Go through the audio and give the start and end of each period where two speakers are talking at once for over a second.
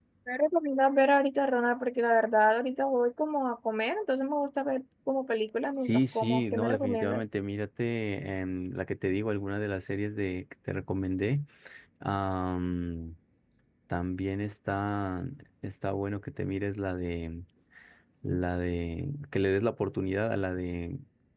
5.7-7.2

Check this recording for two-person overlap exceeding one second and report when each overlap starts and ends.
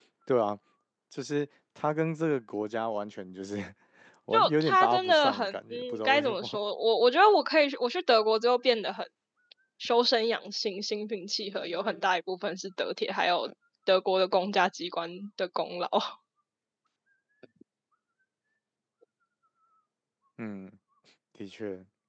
4.3-6.6

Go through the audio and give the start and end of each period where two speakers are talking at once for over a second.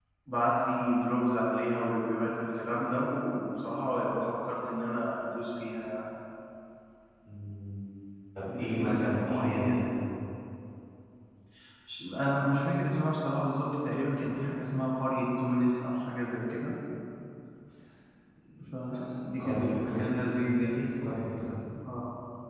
8.5-9.8, 19.4-20.8

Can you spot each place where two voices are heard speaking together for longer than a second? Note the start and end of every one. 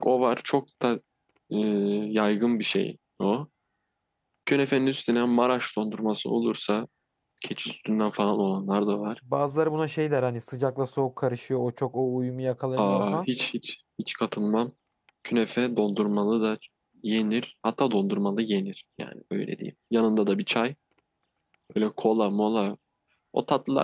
none

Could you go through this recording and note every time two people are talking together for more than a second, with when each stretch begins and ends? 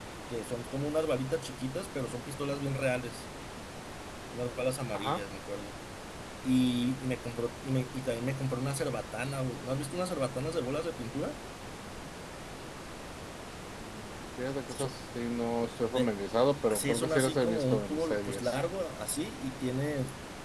16.7-18.6

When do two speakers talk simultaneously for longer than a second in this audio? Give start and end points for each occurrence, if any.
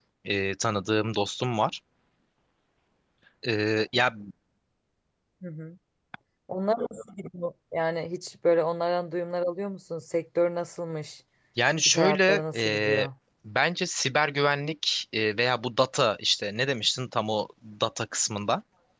11.9-13.1

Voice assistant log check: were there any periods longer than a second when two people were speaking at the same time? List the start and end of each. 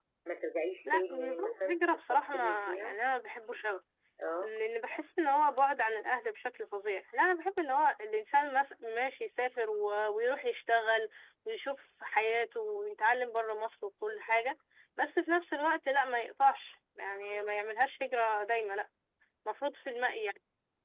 0.8-3.0

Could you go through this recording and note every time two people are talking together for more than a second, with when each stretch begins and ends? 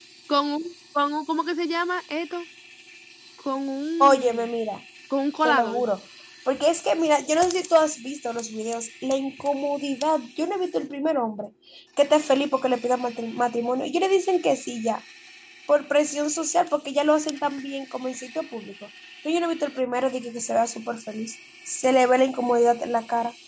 none

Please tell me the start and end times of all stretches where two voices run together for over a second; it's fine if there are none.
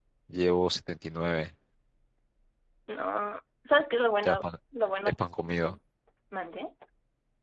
none

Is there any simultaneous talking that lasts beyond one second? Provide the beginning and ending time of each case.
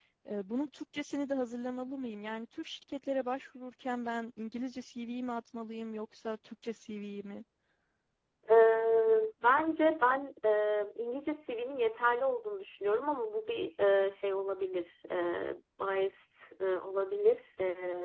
none

